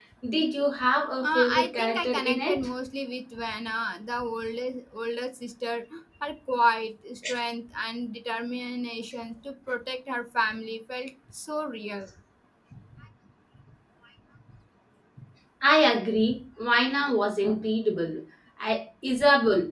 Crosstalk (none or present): present